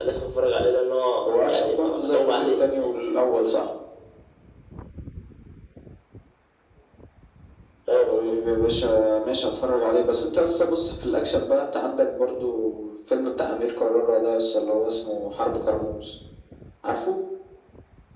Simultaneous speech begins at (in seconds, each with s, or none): 1.3 s